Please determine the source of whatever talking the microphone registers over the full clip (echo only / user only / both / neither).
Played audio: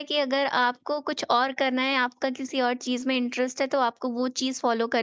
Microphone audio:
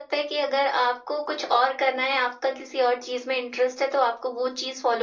echo only